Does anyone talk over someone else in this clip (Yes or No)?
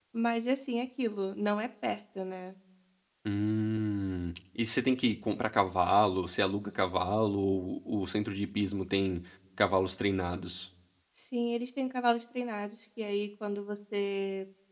No